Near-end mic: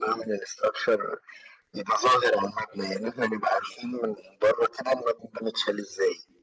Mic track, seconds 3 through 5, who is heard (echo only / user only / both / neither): echo only